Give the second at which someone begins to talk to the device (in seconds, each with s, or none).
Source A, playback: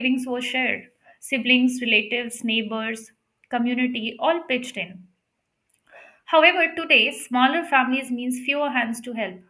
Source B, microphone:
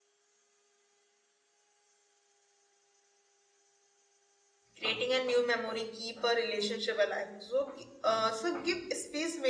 4.8 s